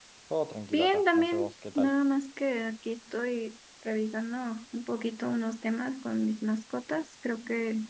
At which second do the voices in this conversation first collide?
0.7 s

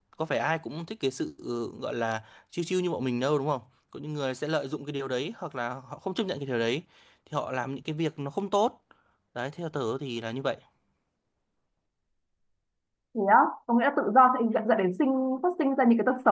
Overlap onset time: none

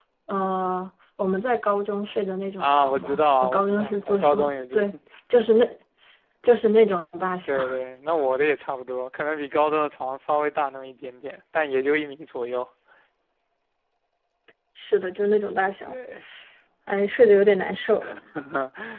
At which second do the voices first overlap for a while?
2.6 s

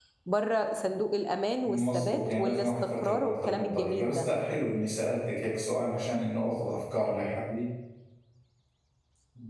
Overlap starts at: 1.6 s

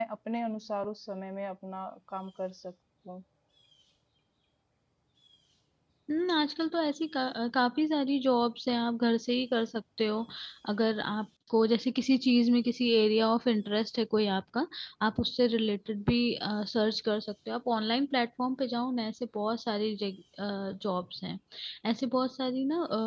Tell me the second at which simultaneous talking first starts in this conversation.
none

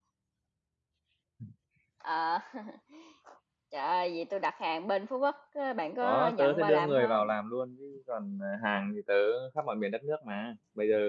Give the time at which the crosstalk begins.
6.0 s

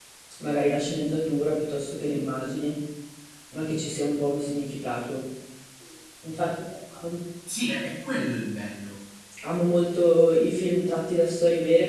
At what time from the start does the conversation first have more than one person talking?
none

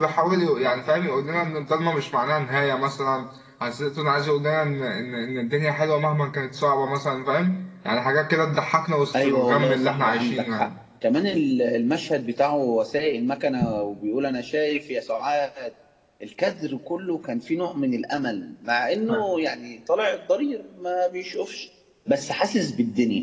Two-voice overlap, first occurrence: 9.1 s

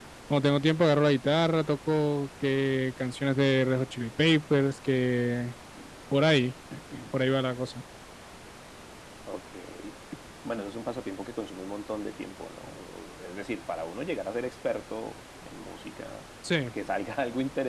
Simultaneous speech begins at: none

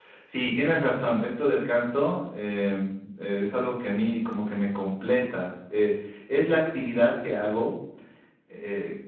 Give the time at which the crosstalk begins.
none

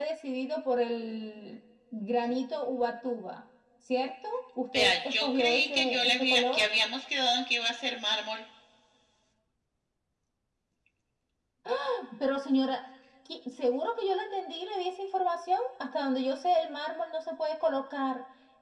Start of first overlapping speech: 4.7 s

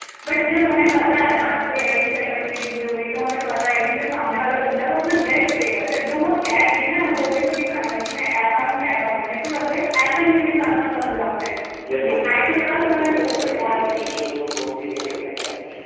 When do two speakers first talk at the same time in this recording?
11.9 s

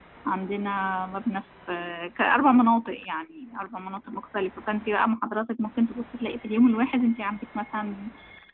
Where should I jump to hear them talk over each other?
none

